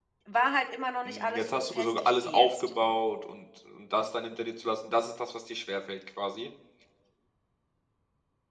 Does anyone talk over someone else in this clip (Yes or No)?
Yes